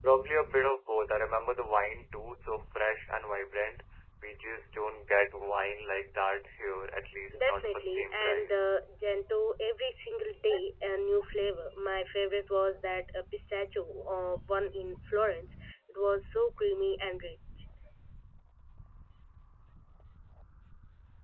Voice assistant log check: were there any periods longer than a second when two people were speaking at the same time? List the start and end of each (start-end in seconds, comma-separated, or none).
7.4-8.6